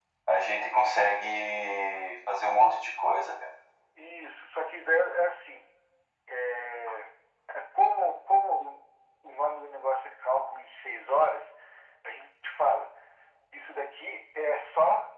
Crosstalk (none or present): none